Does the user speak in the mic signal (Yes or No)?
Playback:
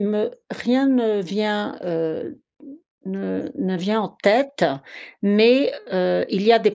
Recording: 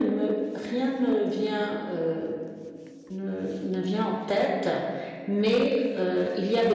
No